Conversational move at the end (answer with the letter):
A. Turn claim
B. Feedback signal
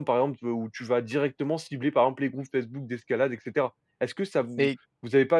B